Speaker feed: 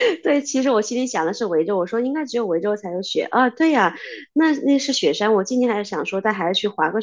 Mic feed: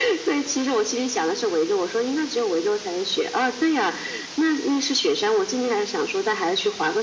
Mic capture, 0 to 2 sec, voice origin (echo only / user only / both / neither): echo only